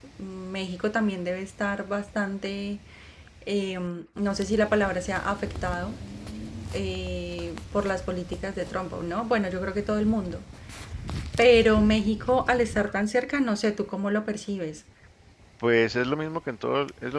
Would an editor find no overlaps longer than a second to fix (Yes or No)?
Yes